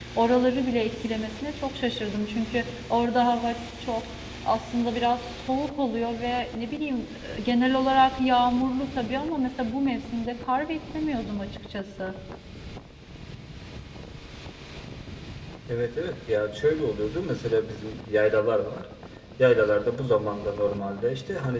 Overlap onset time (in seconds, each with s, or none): none